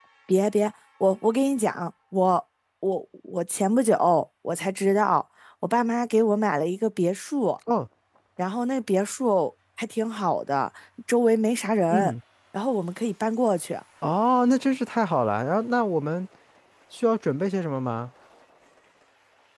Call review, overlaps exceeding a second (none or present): none